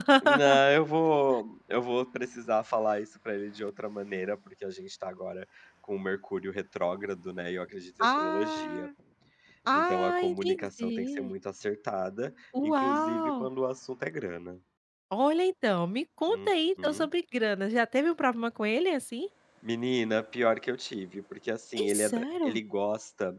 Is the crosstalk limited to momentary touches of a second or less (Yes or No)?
No